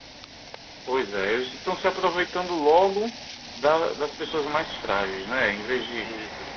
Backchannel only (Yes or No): Yes